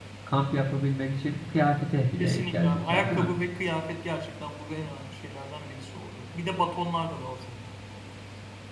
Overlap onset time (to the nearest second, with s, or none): 2 s